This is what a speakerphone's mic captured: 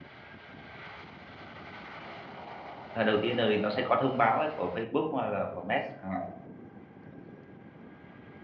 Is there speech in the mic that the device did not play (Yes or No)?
Yes